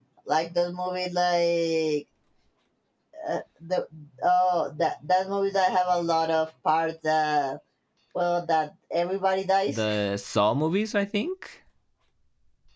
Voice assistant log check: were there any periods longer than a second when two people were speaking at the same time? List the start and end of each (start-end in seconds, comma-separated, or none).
none